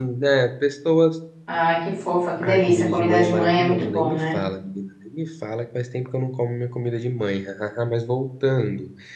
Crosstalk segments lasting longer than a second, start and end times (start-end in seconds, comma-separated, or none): 2.4-4.4